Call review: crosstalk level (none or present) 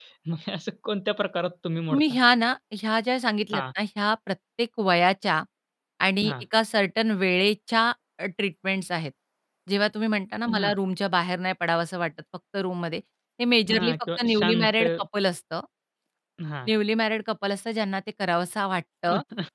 present